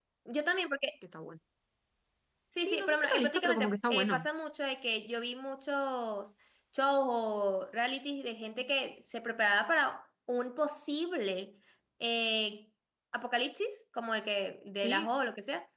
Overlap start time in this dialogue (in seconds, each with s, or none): 2.6 s